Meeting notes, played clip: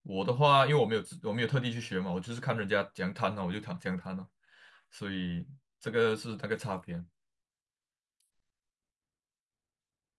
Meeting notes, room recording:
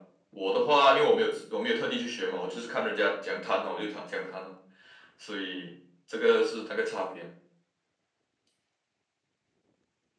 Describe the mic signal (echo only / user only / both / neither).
echo only